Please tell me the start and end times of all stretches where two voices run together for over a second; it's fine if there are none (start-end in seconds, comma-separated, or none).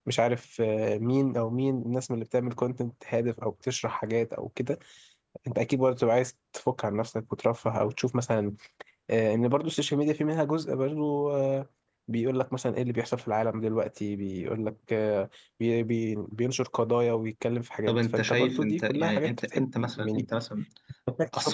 17.9-20.2